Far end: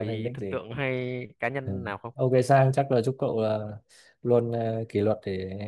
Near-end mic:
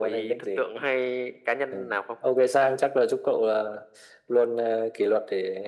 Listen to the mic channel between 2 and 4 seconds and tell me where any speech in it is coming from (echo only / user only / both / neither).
echo only